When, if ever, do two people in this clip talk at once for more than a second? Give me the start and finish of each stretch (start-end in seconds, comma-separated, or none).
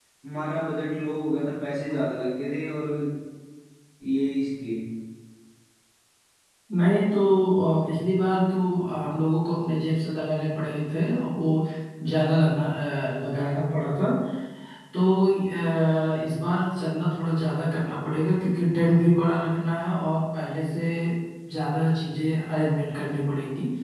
none